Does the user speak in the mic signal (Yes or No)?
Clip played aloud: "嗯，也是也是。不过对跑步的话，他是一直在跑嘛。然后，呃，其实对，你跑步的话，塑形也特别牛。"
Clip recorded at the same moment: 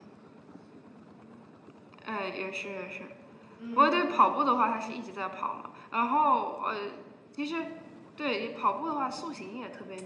Yes